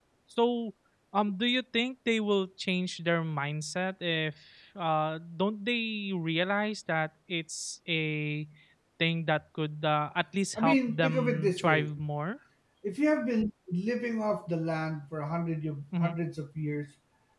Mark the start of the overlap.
10.6 s

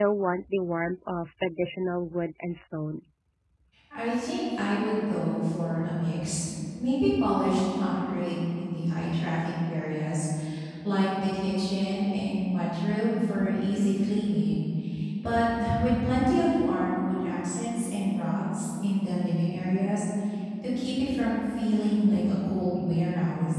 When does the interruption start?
none

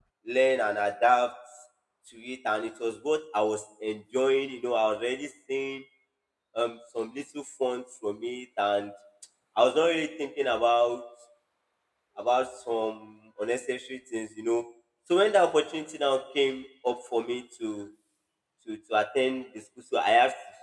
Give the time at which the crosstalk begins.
none

